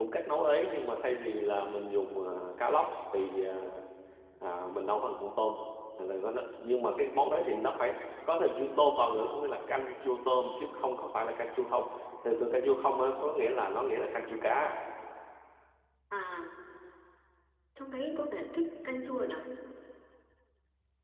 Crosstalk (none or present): none